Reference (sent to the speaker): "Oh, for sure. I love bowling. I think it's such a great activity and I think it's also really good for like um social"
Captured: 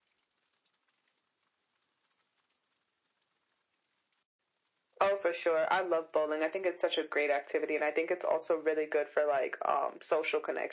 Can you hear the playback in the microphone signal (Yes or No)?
Yes